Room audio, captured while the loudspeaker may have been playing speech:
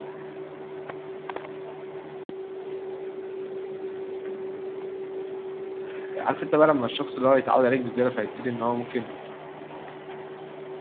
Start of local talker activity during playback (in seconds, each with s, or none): 6.2 s